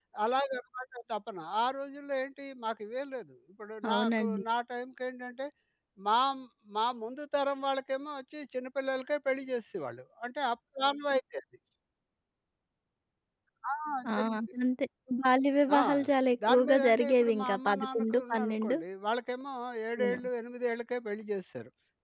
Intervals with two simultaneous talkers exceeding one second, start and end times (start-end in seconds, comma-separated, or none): 16.5-18.8